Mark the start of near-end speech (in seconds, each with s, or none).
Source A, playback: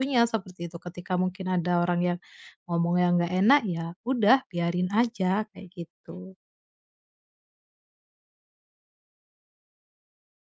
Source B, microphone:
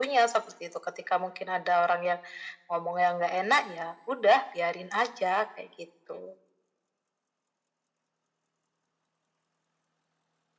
none